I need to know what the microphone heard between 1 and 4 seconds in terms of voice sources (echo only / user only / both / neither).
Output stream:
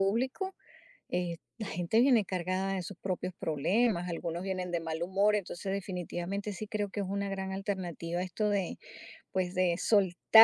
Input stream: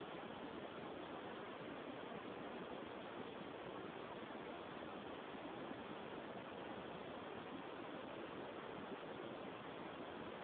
neither